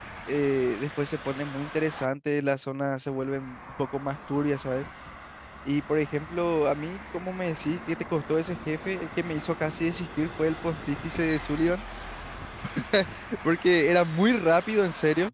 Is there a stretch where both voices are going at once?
No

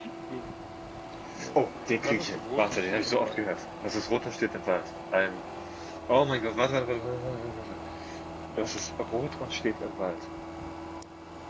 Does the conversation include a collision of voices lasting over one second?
Yes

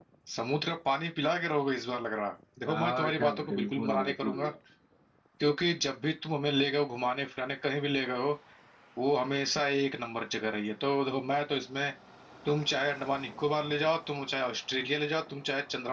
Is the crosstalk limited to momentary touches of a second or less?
No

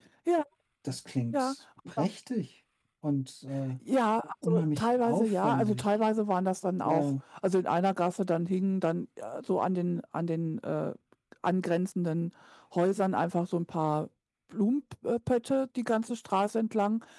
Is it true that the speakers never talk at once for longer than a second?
No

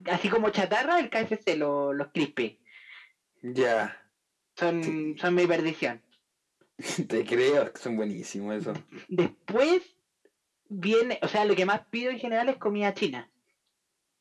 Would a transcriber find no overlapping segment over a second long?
Yes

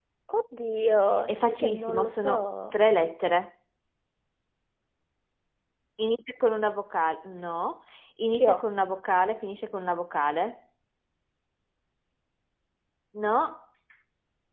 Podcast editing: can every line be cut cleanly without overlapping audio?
No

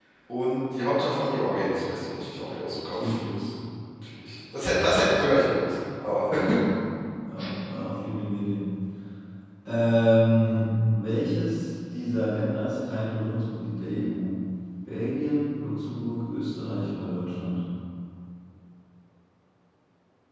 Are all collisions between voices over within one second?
Yes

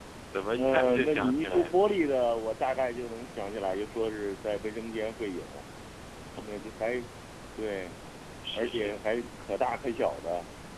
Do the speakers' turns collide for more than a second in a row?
Yes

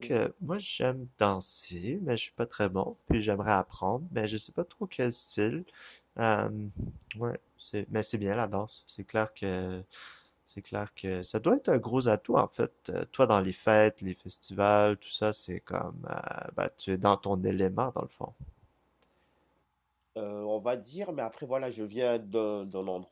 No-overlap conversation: Yes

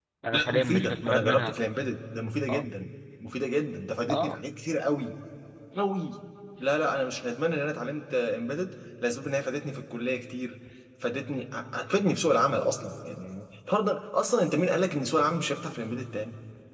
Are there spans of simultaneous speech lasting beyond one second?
Yes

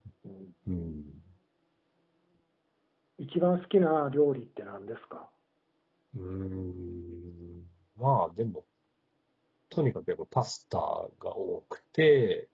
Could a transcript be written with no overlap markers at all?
Yes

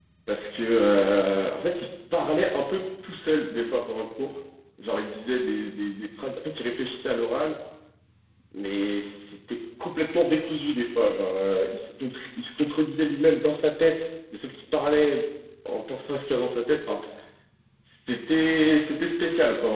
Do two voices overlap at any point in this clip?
No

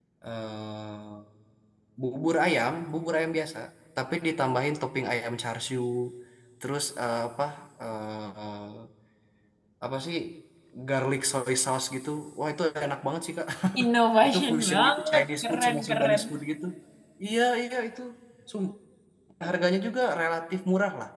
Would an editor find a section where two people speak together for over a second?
Yes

